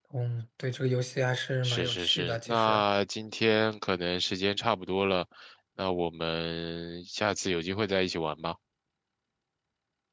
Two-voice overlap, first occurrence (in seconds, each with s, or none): 1.6 s